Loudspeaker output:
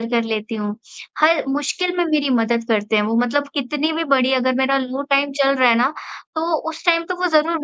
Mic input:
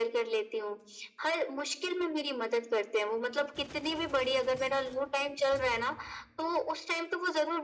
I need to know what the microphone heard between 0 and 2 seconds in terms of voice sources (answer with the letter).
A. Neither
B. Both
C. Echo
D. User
C